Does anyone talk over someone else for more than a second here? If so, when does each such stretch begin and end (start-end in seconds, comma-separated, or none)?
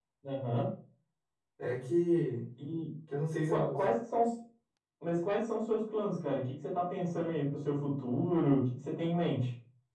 none